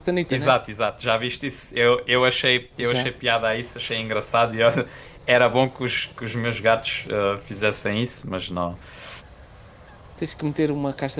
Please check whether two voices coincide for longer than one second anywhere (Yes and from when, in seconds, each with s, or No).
No